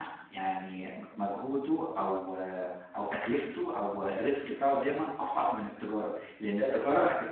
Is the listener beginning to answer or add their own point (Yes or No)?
No